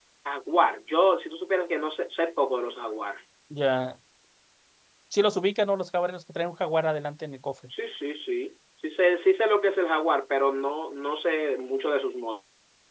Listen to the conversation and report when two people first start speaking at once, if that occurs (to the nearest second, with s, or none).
none